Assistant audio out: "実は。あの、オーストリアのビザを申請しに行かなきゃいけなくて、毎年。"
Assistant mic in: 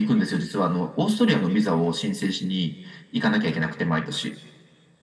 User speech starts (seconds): none

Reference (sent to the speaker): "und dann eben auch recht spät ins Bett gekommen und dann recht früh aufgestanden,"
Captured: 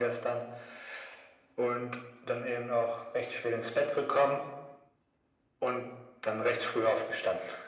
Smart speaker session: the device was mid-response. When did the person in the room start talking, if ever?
none

